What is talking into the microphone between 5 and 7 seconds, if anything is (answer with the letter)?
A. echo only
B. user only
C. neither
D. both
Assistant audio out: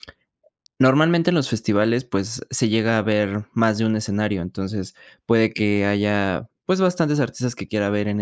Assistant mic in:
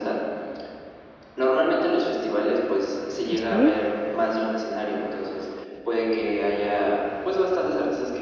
A